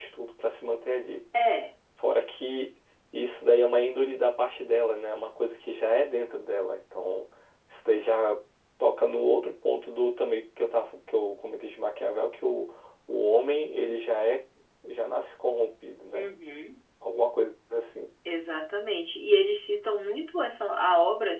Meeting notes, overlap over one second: none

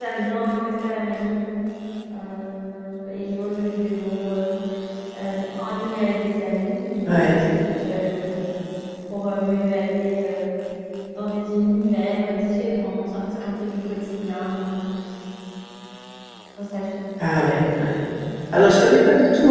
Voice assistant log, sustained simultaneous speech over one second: none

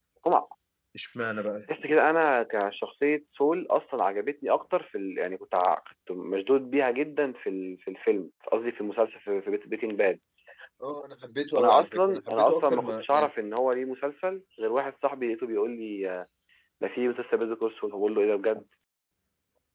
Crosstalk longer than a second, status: present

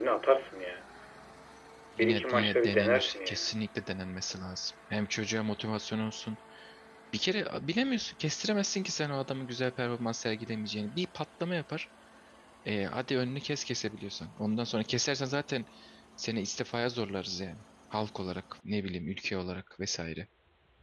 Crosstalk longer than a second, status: present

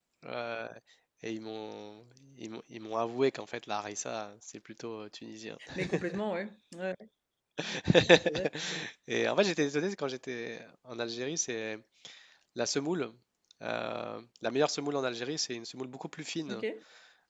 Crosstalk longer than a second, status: none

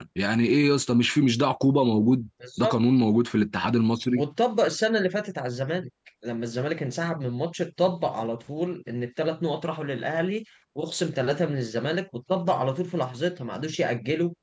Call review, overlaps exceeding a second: none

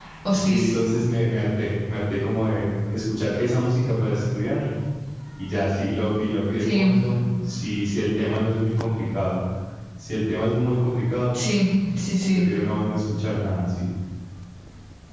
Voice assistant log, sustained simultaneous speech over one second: none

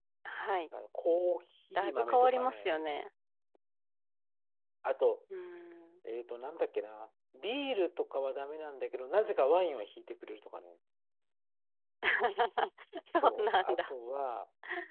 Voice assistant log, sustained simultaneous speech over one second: present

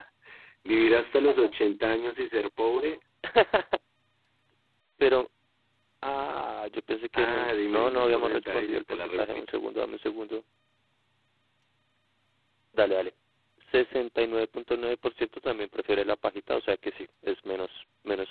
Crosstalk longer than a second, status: present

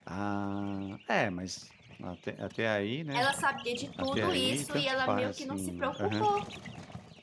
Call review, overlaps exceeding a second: present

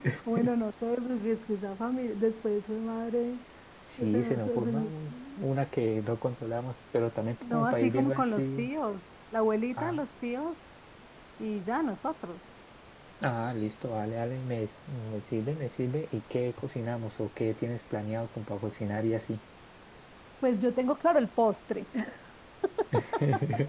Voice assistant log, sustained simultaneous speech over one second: present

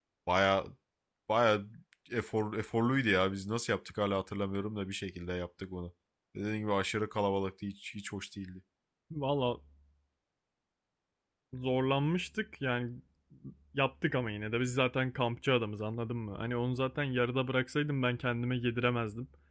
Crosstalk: none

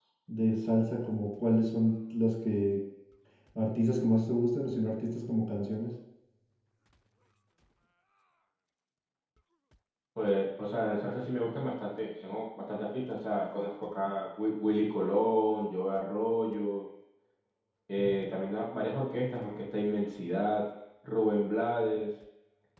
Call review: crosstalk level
none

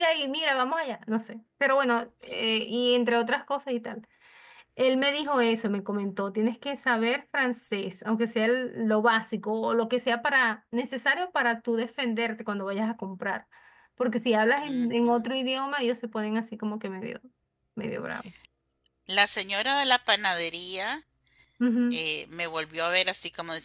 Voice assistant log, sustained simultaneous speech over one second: none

